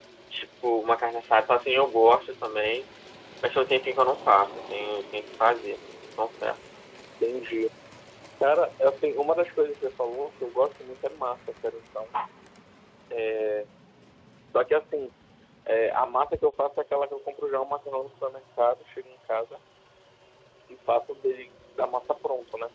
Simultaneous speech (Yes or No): No